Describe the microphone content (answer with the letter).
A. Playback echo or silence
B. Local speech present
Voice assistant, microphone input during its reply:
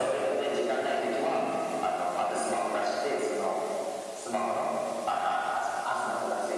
B